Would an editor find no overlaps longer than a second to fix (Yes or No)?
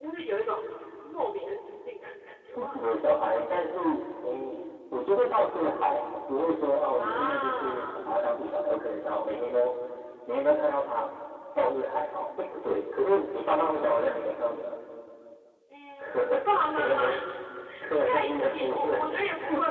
No